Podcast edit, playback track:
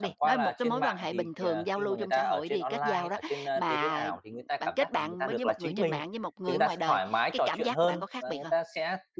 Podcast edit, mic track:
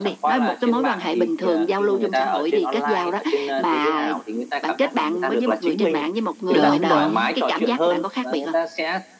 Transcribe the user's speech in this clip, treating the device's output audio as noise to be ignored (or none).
đúng, đúng,